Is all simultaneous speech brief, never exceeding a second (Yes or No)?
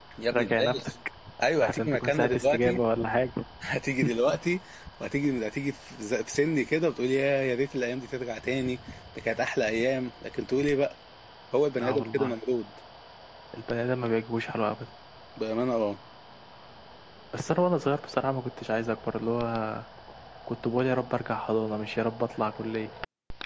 No